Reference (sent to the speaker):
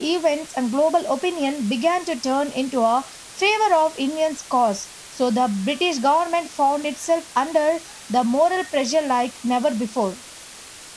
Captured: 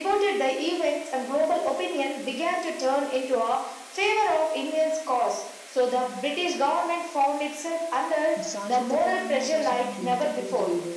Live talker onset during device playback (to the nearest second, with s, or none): 8 s